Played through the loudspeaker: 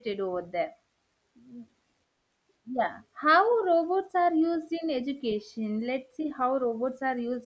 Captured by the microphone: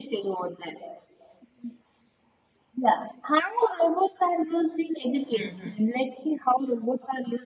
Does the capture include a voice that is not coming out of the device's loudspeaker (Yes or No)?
Yes